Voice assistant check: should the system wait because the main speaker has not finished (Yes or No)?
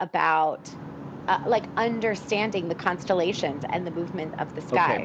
No